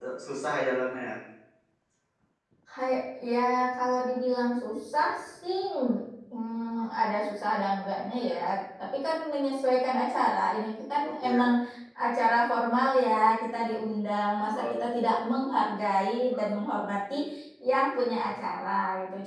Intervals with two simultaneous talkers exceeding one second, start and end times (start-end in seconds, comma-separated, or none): none